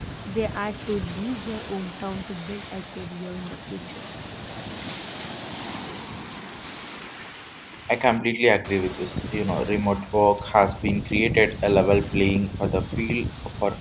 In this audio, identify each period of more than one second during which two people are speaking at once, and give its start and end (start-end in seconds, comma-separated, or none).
none